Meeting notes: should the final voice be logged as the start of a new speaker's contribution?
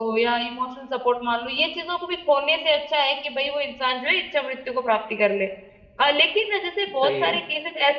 No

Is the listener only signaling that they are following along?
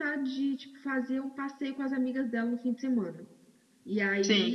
Yes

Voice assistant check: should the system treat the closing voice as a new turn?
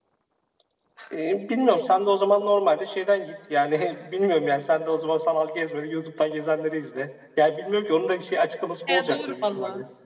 Yes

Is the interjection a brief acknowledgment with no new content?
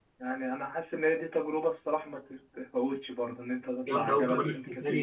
No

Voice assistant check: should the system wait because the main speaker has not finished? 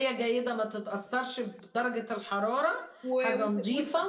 No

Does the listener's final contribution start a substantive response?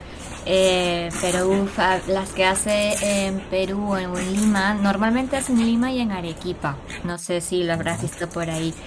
No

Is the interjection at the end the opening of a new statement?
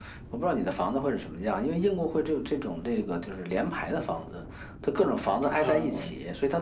No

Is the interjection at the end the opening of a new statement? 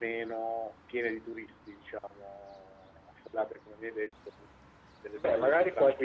Yes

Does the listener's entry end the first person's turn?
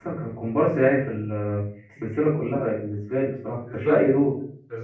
Yes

